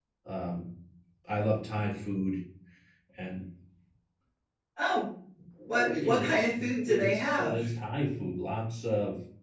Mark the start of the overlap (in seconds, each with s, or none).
5.7 s